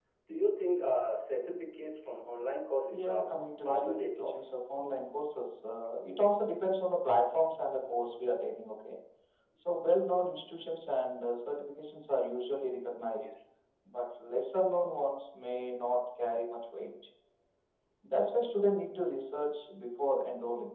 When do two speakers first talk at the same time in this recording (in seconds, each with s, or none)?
2.9 s